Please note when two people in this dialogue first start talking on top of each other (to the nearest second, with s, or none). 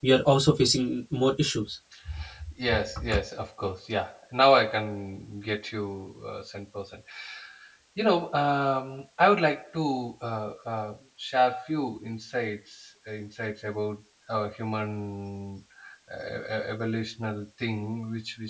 none